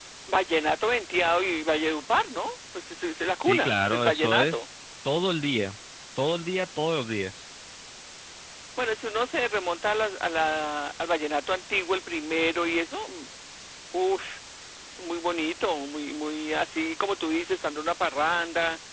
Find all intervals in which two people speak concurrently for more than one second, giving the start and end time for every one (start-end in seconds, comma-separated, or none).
3.3-4.7